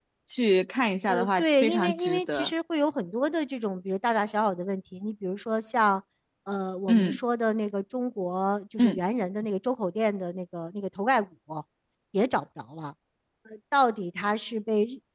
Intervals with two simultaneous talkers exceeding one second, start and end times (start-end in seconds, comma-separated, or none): 1.1-2.5